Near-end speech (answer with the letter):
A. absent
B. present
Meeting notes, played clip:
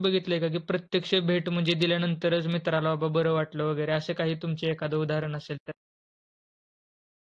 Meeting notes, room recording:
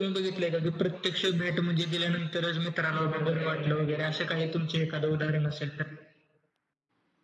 B